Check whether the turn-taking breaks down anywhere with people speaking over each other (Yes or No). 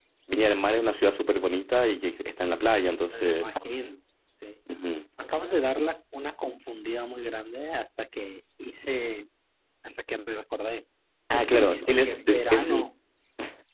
Yes